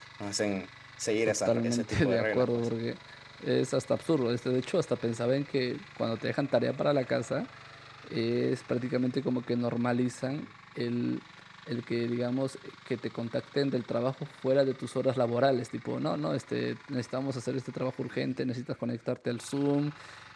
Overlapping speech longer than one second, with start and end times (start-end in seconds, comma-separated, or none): 1.4-2.7